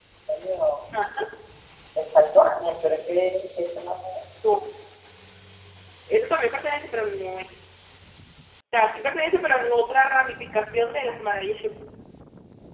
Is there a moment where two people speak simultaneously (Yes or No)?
No